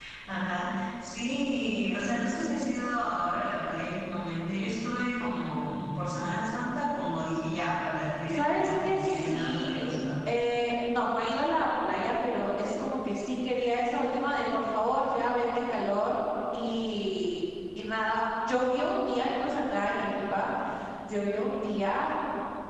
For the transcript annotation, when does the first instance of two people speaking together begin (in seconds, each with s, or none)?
8.3 s